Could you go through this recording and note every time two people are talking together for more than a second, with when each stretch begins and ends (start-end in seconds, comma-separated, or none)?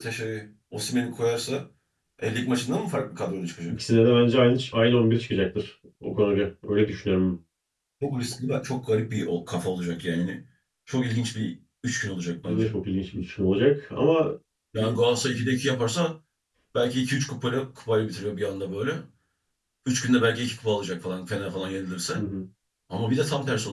none